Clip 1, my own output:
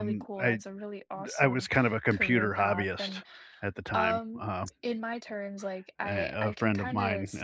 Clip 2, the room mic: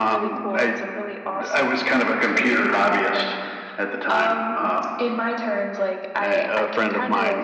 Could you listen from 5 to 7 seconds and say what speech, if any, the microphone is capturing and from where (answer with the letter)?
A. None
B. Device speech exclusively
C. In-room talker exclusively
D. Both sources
B